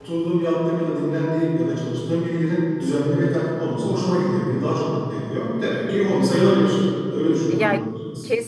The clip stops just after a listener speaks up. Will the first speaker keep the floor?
No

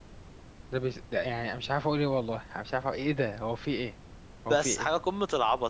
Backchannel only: No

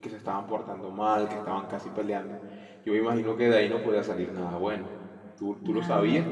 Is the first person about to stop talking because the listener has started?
No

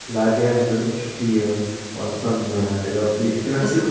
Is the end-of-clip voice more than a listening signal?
No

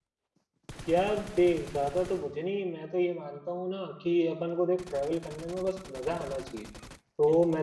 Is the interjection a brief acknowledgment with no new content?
Yes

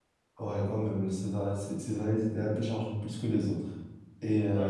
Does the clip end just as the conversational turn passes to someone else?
No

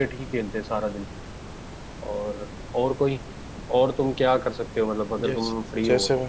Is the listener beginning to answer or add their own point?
Yes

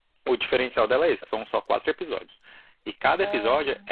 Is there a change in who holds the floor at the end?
No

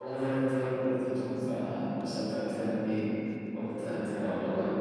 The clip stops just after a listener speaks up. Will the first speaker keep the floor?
Yes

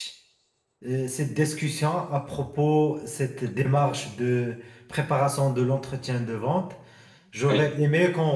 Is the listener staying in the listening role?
Yes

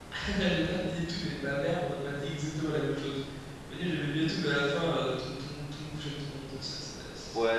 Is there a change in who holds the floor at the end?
Yes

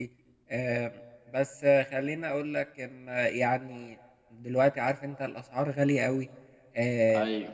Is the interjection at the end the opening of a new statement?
No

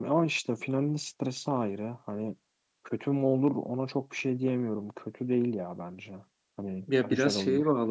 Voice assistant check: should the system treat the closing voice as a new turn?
Yes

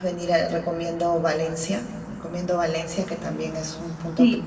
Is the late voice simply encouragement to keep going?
No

